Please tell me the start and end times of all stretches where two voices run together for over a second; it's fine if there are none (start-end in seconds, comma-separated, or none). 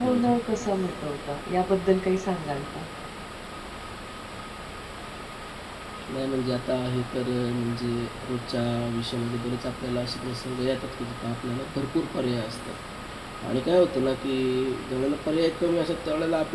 none